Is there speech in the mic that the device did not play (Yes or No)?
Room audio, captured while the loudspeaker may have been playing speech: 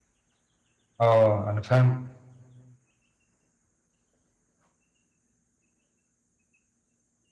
Yes